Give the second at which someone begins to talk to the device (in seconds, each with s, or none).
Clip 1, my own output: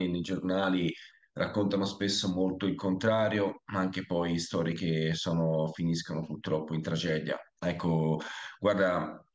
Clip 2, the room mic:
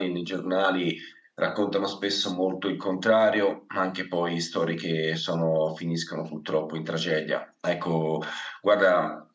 none